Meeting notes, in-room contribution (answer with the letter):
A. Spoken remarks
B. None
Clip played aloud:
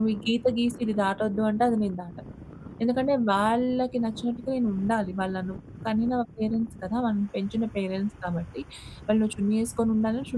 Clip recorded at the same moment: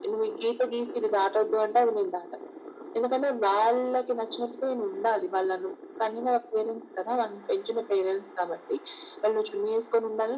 B